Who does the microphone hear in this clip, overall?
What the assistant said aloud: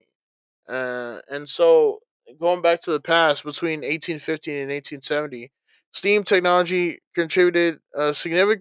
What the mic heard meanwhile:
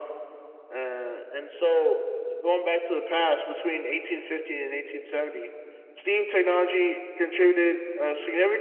echo only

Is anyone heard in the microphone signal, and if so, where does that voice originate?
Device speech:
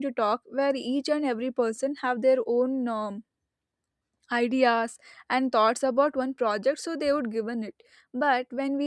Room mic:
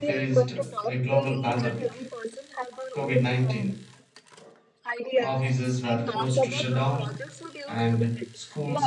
both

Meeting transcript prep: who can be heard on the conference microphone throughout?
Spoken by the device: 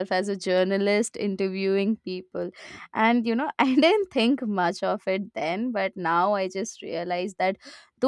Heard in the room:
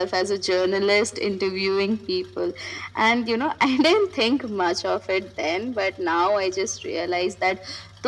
echo only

